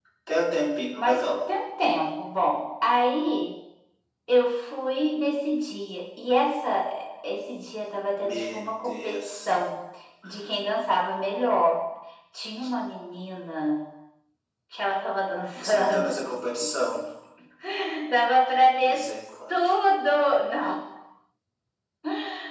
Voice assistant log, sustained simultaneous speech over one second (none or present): present